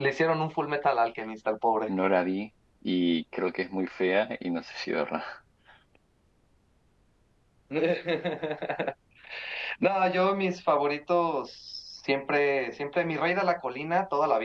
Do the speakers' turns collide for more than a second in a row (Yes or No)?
No